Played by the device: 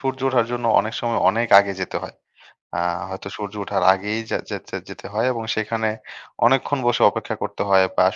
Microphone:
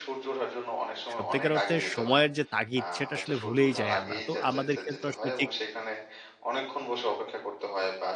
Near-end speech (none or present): present